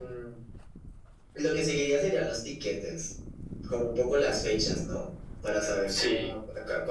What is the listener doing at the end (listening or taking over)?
listening